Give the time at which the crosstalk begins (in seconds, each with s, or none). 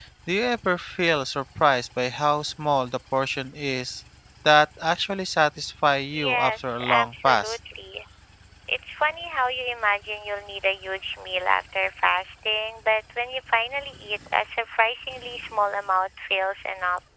6.1 s